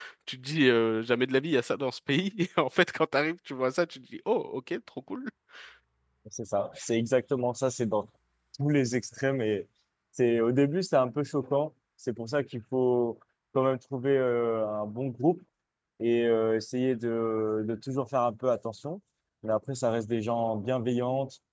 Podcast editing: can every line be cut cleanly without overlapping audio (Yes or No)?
Yes